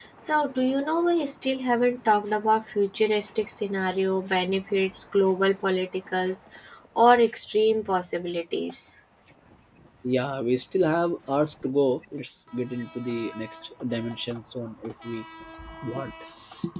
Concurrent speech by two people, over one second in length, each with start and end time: none

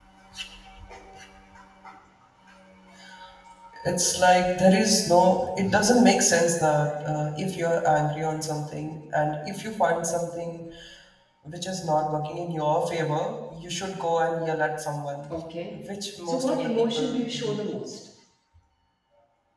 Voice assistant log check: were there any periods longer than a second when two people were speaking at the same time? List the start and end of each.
16.2-17.6

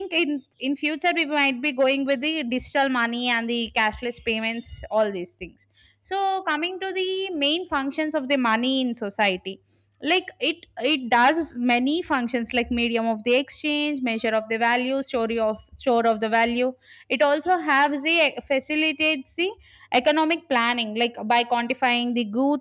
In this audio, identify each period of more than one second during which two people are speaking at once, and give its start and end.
none

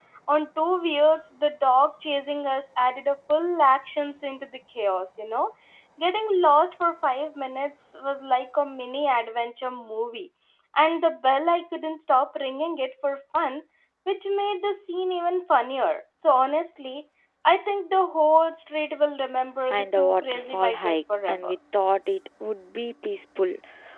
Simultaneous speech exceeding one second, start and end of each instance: 19.7-21.5

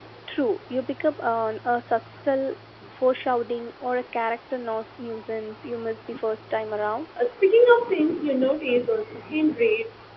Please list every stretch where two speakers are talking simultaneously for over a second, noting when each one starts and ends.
none

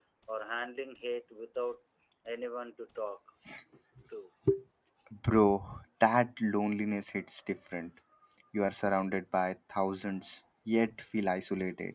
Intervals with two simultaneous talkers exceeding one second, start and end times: none

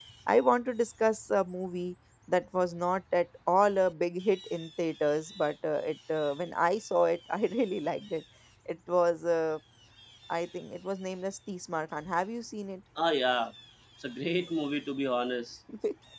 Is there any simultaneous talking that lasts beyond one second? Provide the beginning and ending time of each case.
none

